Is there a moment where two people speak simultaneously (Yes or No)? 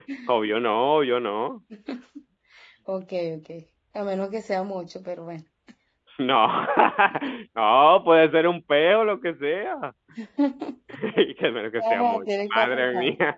Yes